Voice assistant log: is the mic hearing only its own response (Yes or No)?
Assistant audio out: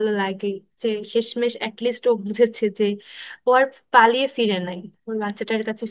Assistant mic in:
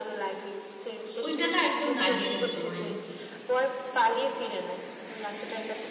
No